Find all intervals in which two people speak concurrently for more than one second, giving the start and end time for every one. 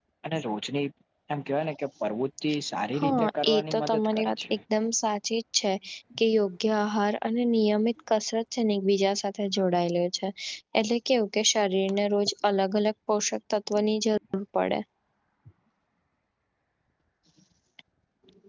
3.0-4.4

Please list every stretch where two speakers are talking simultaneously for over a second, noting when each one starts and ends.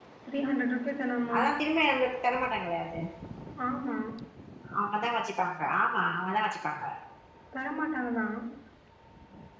none

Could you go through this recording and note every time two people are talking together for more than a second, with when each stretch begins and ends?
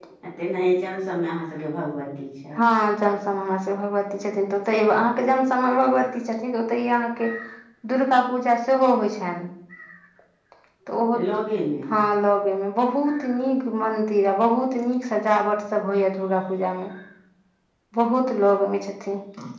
none

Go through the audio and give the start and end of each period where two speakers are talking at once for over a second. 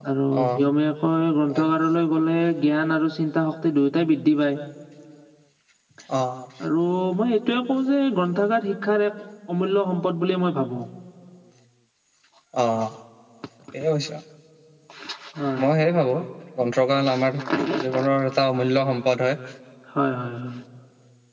none

